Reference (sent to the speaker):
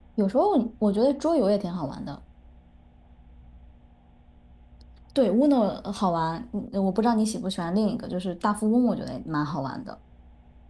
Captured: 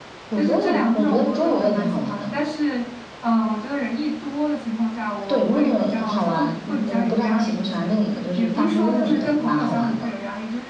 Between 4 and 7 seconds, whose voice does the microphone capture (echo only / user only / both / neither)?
both